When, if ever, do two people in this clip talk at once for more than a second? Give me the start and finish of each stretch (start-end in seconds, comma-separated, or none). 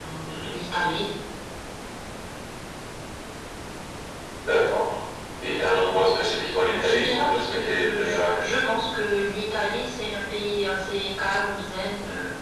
6.7-8.3